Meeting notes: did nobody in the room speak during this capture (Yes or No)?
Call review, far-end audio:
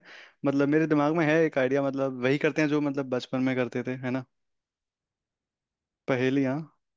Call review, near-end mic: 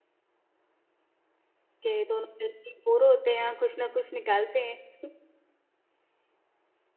No